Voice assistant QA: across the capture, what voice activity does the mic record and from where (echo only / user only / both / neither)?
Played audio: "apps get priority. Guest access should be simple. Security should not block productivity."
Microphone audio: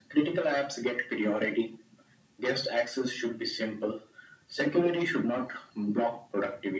echo only